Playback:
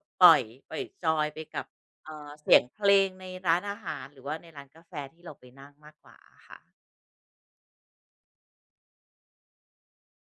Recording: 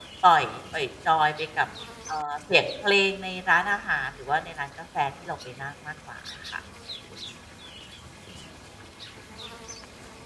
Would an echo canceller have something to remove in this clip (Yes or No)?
Yes